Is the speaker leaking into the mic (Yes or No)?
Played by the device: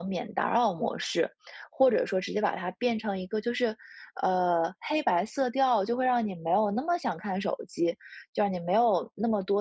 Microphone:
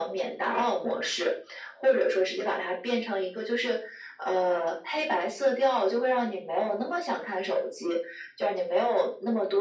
Yes